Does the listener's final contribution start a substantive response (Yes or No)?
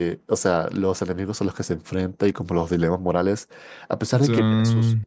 No